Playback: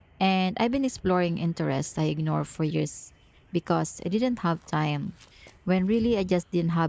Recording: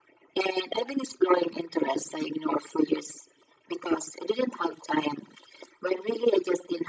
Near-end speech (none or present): none